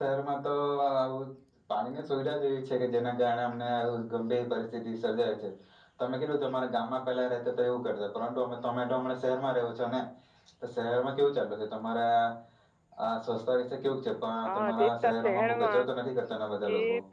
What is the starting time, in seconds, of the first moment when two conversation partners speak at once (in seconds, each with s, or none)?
14.4 s